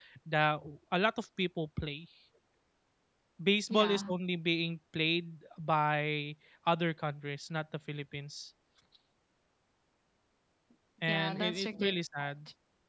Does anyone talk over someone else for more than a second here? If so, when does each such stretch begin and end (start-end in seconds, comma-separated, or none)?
11.1-12.3